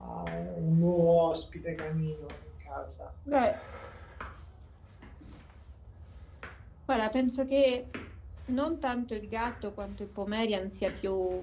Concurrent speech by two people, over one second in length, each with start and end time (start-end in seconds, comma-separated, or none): none